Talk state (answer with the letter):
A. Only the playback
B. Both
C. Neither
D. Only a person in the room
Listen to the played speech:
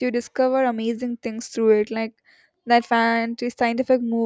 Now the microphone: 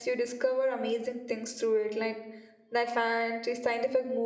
A